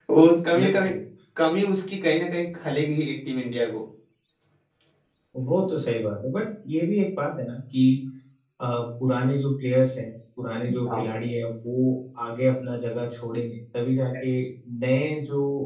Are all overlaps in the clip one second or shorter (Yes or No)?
Yes